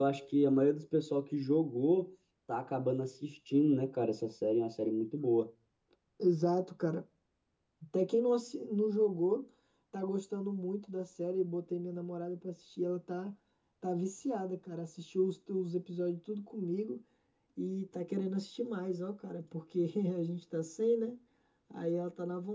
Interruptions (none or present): none